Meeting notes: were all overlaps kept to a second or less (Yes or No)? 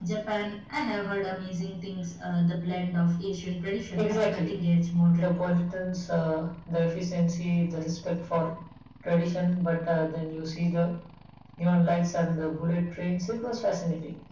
Yes